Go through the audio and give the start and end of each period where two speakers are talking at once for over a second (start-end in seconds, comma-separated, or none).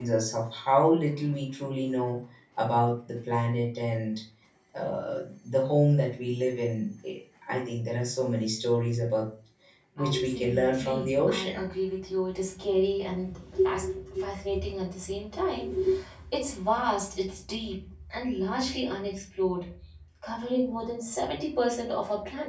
10.0-11.7